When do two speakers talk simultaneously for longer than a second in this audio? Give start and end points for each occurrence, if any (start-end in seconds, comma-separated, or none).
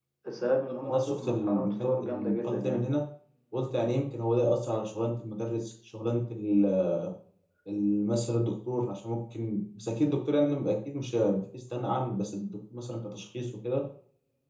0.8-2.8